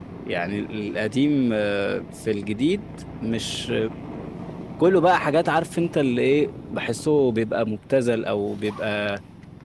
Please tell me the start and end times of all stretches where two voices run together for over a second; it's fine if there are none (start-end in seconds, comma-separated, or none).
none